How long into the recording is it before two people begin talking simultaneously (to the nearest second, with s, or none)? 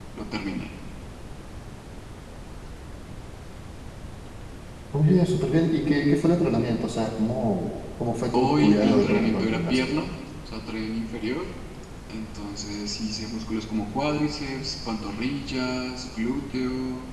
8 s